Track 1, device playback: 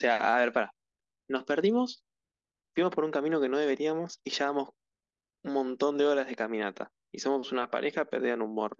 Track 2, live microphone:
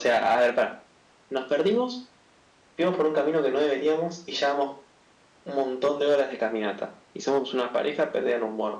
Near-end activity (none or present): none